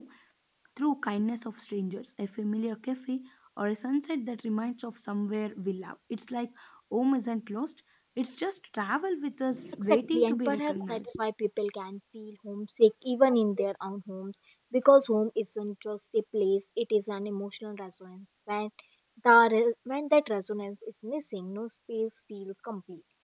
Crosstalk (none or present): present